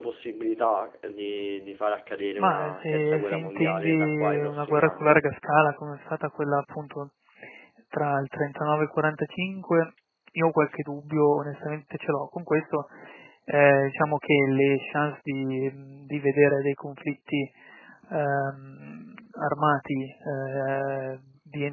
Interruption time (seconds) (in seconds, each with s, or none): 2.4 s